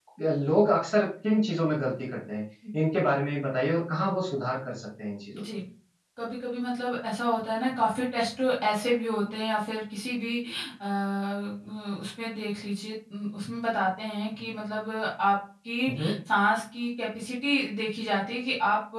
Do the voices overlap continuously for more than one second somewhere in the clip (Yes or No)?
No